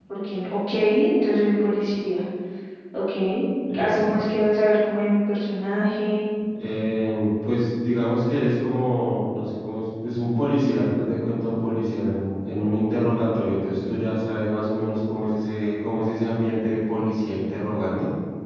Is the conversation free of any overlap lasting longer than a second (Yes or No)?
Yes